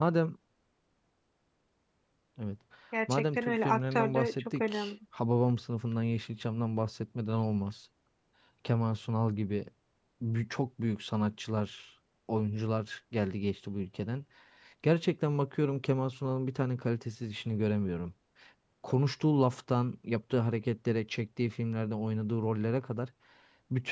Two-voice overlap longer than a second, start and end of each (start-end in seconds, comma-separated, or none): 3.1-4.9